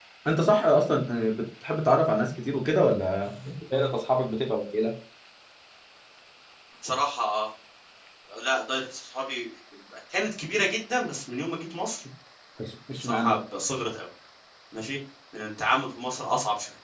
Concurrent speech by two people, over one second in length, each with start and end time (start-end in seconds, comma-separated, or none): none